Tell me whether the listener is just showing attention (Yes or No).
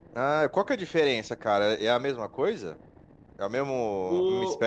No